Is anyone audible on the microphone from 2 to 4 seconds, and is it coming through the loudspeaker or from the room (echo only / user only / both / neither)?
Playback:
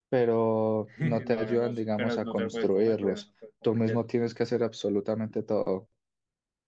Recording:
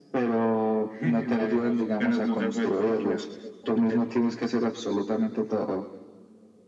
echo only